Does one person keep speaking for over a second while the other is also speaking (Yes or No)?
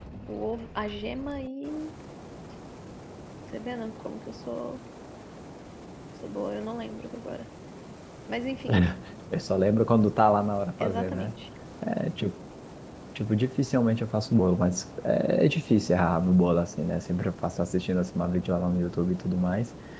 No